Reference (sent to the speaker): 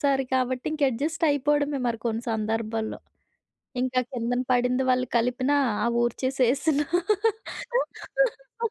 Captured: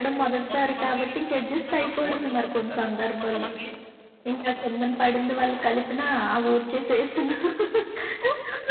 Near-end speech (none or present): present